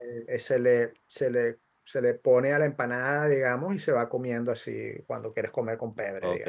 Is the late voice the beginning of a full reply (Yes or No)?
Yes